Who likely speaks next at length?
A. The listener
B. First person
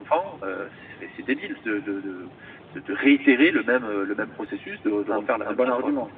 A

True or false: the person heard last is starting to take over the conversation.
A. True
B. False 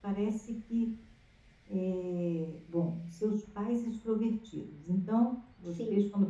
B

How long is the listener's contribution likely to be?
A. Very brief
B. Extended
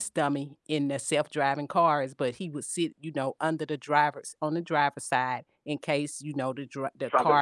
B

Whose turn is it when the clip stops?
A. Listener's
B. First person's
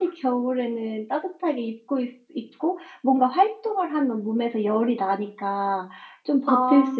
B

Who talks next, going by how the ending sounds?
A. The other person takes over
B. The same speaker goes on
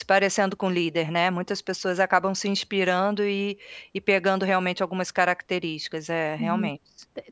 A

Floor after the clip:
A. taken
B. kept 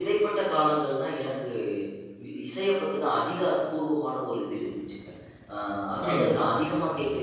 B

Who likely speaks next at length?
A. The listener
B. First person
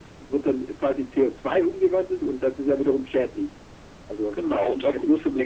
A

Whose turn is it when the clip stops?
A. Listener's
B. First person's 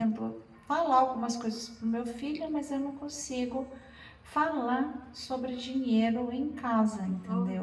A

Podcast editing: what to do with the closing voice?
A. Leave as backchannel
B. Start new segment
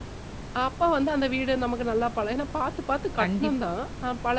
A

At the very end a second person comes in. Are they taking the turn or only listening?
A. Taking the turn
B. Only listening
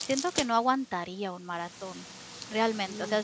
B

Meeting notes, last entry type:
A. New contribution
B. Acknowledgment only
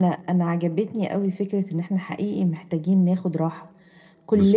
B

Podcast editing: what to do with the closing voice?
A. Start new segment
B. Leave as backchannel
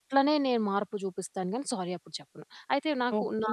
A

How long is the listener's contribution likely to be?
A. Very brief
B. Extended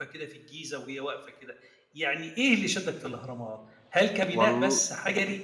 A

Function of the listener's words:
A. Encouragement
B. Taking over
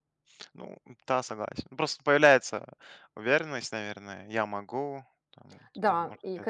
B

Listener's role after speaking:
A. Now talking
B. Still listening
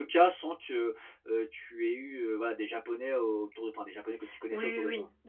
A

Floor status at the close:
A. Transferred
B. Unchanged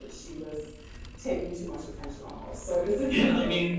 A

